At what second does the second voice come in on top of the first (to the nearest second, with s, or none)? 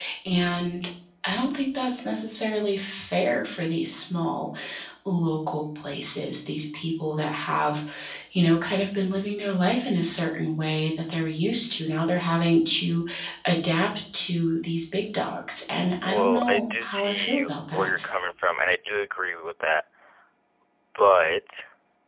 16 s